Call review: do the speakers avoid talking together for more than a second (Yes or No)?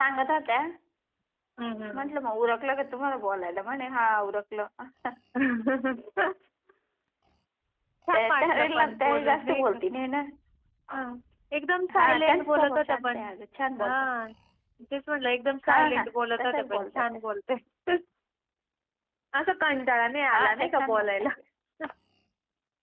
No